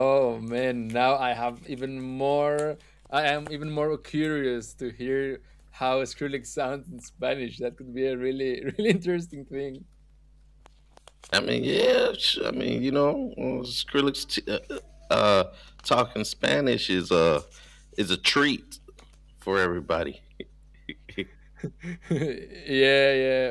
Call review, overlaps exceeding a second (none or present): none